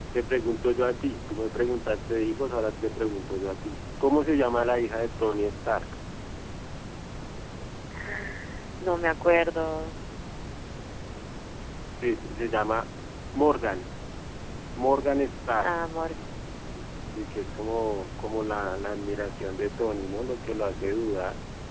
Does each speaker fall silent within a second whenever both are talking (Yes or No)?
Yes